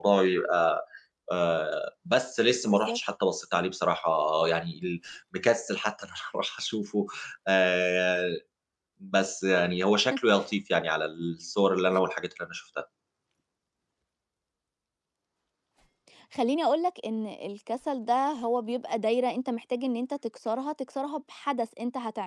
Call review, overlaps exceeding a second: none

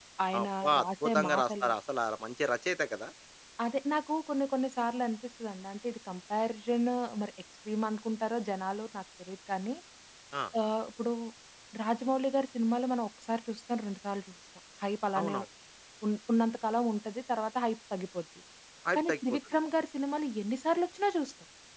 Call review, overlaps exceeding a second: present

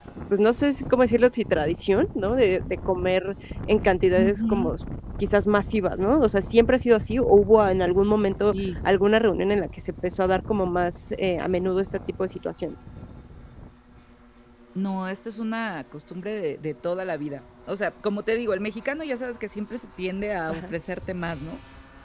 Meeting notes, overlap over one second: none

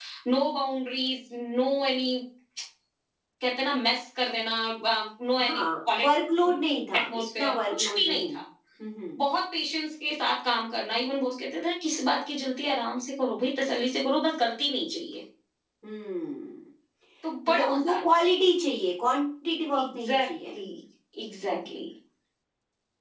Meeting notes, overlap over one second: present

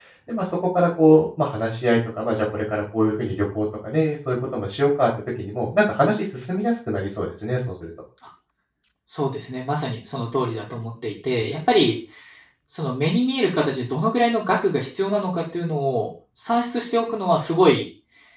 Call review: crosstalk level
none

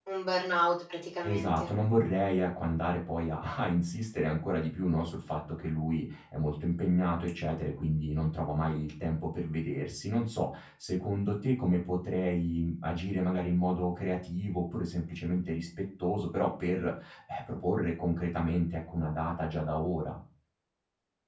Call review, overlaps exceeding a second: none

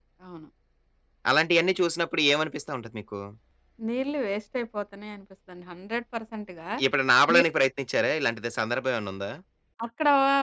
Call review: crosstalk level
none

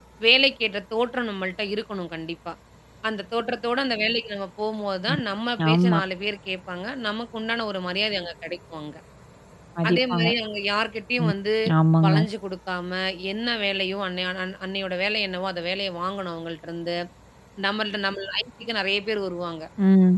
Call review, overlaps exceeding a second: none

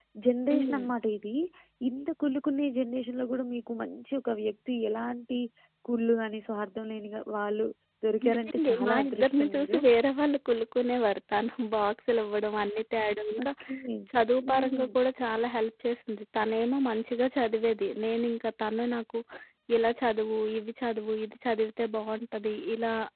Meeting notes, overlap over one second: present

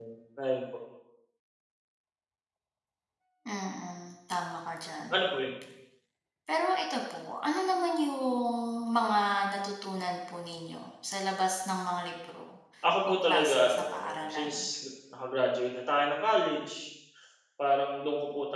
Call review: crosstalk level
present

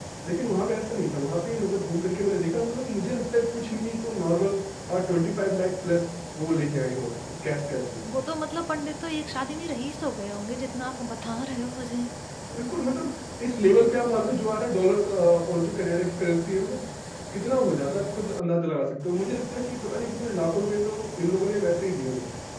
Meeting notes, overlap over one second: none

